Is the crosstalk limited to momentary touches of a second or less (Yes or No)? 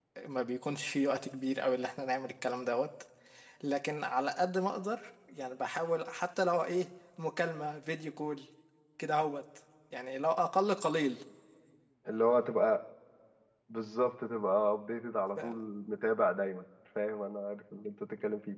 Yes